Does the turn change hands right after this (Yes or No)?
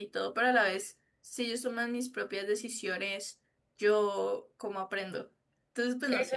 Yes